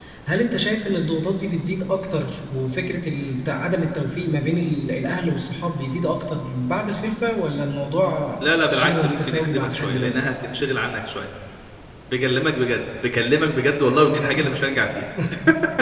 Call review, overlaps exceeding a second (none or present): present